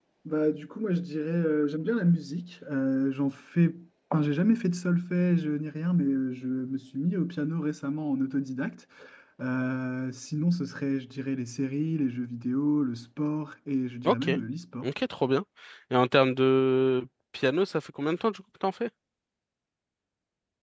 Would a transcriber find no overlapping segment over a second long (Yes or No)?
Yes